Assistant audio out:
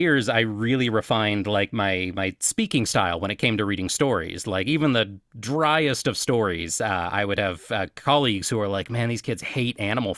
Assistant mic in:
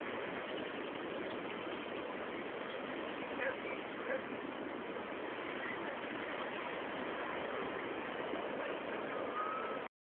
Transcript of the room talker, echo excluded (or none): none